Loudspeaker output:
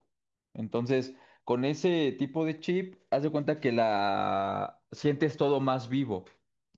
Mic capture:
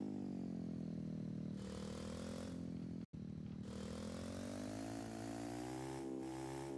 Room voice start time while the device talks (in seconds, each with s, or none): none